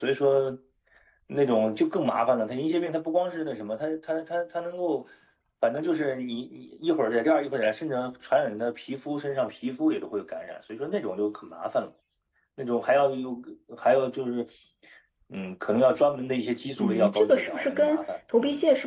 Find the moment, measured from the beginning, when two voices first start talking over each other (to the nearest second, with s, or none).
17 s